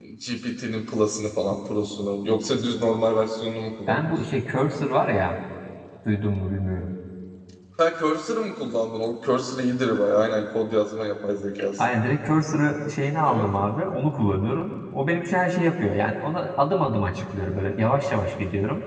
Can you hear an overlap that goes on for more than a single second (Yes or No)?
No